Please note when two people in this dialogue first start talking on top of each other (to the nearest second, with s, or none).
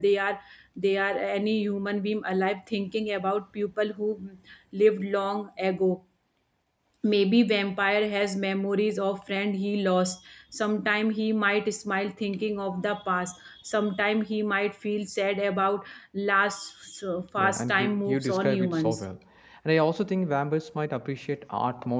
17 s